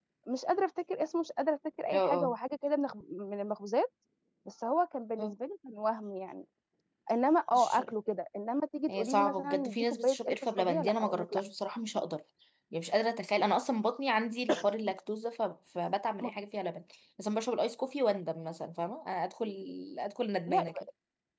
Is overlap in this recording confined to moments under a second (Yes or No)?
No